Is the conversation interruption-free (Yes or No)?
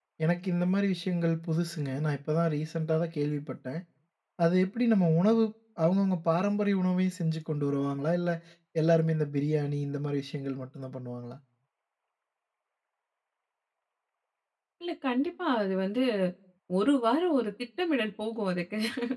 Yes